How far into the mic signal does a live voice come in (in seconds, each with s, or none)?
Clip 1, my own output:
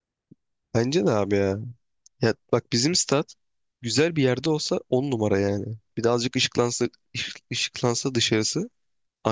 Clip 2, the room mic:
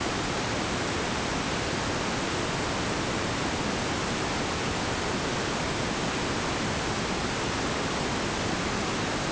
none